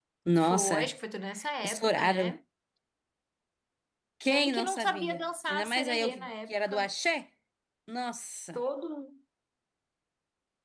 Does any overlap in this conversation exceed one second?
Yes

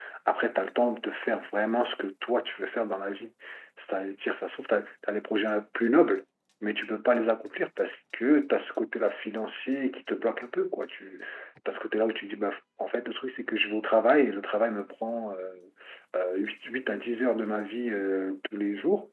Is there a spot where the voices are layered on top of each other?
No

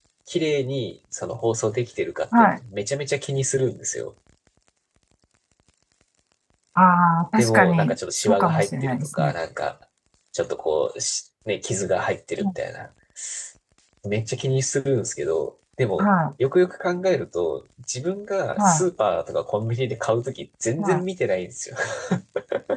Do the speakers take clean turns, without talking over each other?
No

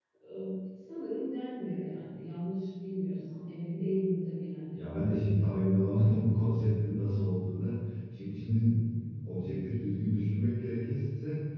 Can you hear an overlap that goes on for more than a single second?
No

